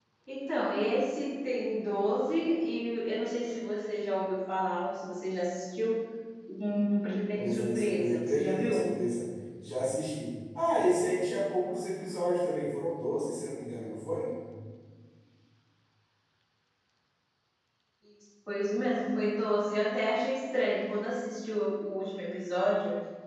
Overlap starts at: 7.4 s

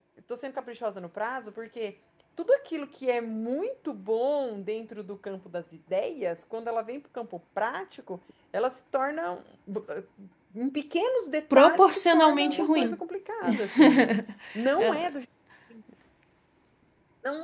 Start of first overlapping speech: 11.5 s

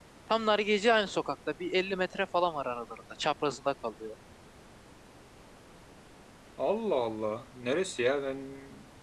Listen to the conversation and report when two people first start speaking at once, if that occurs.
none

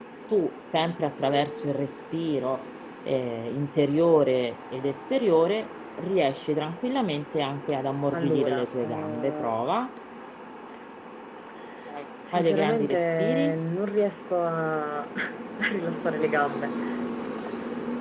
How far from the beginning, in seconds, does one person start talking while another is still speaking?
8.1 s

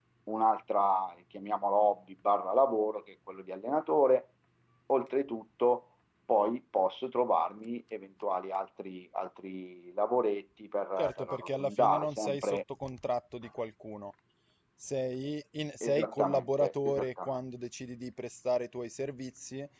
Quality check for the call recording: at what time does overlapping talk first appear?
11.0 s

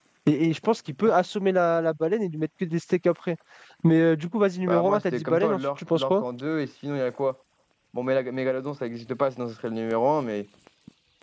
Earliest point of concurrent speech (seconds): 4.7 s

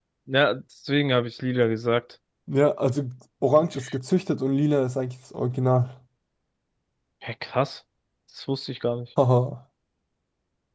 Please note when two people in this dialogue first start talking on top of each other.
none

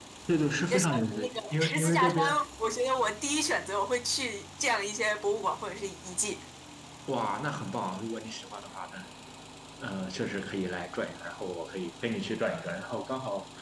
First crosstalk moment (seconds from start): 0.7 s

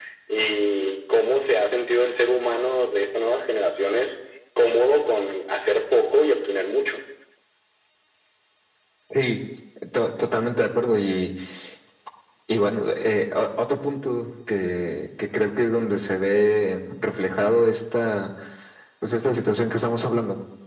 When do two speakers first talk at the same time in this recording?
none

